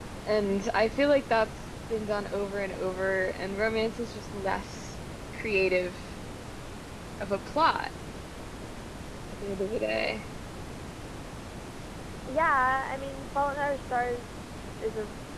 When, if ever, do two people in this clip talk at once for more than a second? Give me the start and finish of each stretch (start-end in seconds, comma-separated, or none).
none